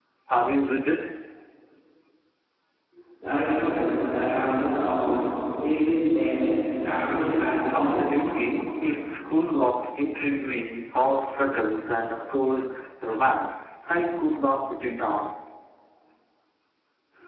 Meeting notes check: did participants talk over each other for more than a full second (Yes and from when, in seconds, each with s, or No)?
No